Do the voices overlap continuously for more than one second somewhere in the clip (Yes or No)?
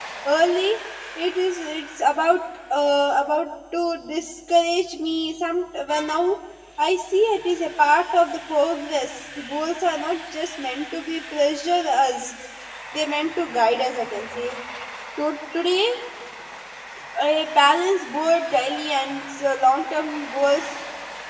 No